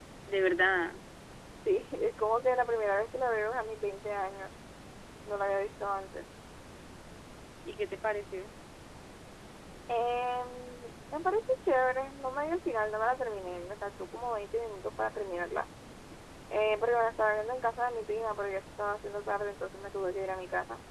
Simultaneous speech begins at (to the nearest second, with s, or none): none